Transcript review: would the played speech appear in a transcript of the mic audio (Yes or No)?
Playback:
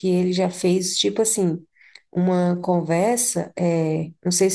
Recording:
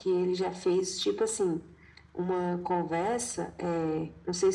Yes